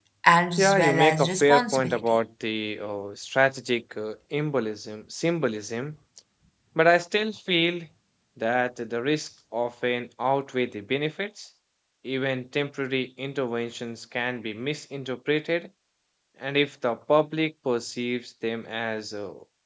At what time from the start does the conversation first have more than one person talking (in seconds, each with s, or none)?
0.6 s